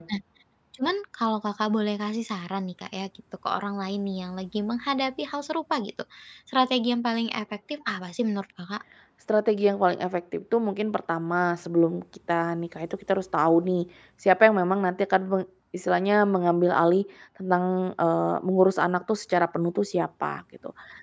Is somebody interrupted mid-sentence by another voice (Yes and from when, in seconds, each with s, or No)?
No